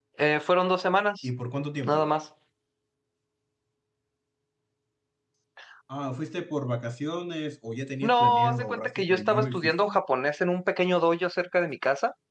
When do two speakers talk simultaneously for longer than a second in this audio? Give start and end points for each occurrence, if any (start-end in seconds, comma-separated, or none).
8.0-10.0